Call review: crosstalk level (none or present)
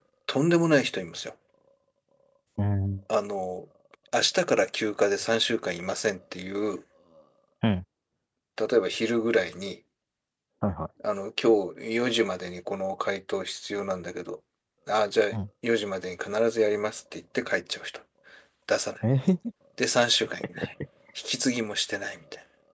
none